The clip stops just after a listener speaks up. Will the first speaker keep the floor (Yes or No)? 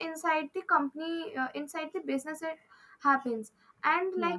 Yes